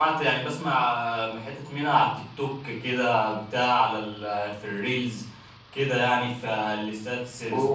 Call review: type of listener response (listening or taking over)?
taking over